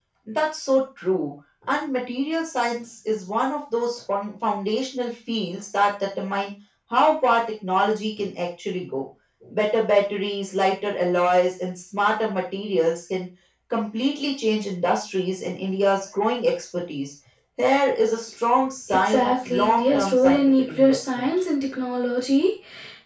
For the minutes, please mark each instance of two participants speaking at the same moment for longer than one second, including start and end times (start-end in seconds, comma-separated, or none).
19.0-21.3